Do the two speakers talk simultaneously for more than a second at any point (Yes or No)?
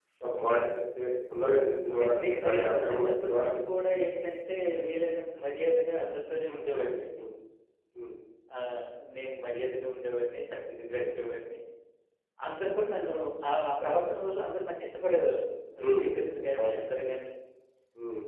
Yes